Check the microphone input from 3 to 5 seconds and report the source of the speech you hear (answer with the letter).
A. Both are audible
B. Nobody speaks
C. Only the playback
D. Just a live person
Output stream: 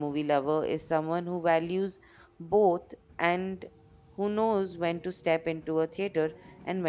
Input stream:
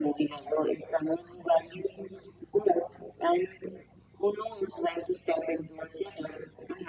C